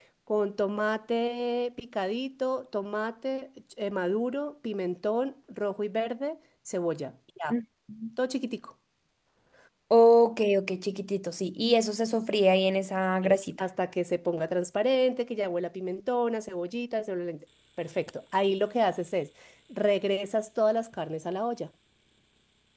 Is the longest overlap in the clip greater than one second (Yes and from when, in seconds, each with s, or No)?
No